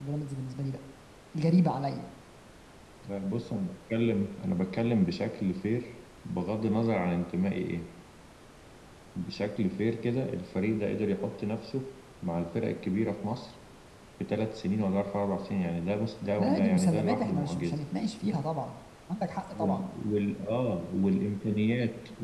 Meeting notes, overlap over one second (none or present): present